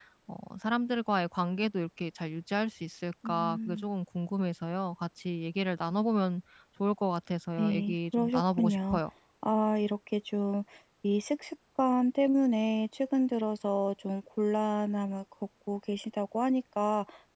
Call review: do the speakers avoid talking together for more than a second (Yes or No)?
No